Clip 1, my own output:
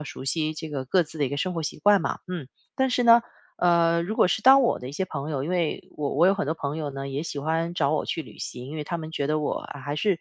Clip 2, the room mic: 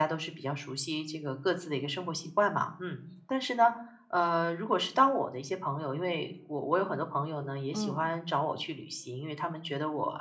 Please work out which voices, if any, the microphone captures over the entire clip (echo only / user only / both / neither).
both